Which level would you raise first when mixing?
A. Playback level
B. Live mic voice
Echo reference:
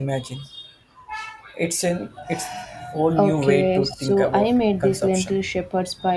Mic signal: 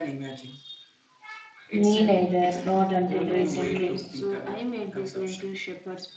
A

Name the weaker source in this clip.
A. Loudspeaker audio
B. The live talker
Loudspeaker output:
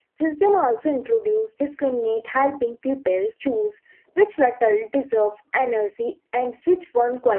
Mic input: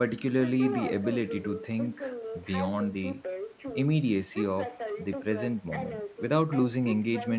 A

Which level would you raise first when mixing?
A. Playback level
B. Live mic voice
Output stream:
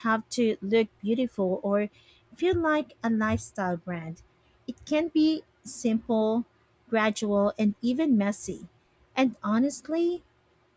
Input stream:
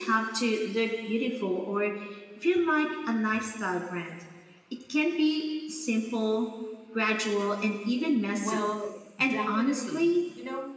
B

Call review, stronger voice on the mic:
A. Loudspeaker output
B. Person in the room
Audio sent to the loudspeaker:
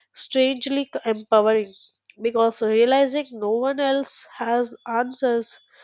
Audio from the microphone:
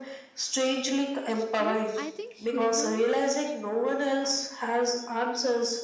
A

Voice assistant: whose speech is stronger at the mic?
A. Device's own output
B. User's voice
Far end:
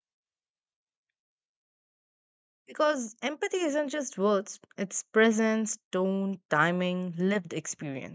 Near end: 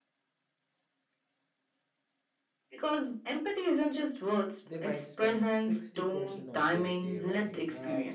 A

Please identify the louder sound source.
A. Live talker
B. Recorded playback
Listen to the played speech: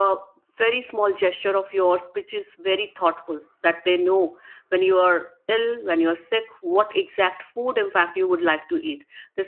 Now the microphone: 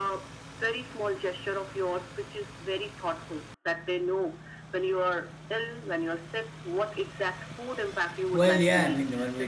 A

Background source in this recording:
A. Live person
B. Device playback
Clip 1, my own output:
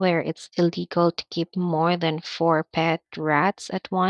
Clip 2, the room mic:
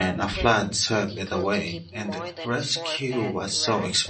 B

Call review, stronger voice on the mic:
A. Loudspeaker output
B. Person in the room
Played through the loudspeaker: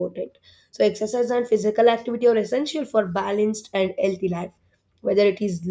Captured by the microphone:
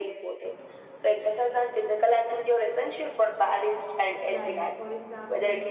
A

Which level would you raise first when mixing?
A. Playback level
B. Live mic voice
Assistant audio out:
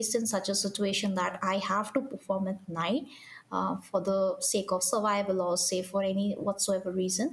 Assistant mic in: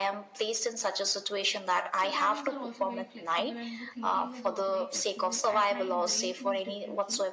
B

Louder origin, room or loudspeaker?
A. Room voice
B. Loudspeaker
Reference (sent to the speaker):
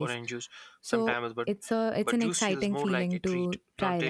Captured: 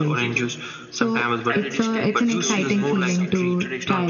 B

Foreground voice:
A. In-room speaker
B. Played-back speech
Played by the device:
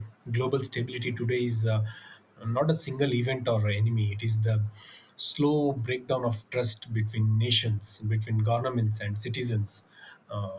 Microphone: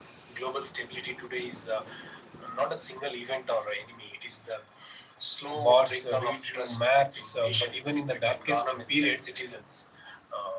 A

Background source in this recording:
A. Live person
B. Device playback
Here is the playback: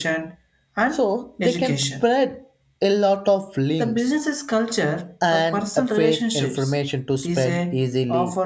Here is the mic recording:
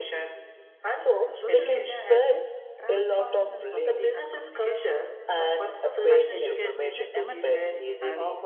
A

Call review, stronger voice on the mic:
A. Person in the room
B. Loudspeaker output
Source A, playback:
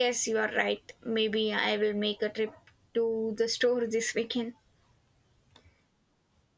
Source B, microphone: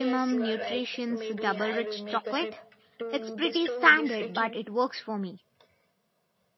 A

